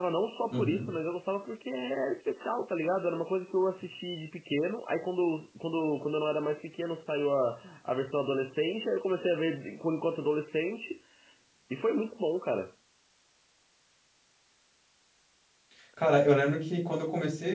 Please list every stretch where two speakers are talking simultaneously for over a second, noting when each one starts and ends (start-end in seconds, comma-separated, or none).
none